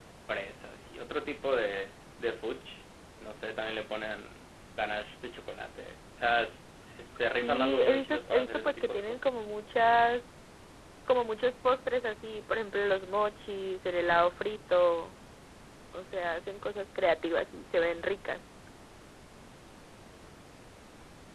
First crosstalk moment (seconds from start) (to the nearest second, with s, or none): 7 s